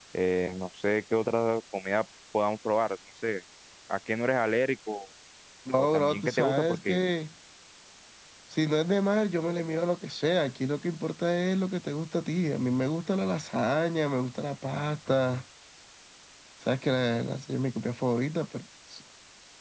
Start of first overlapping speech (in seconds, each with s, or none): 5.8 s